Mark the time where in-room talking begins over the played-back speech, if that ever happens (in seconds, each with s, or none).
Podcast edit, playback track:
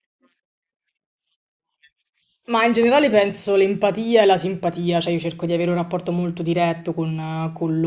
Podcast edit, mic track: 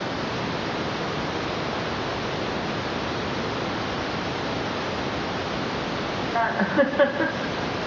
6.4 s